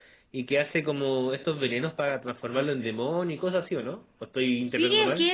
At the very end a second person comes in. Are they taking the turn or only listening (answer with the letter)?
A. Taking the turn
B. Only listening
A